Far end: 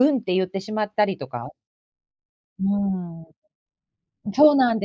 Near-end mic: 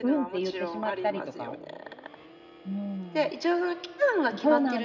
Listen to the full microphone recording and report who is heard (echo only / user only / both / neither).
both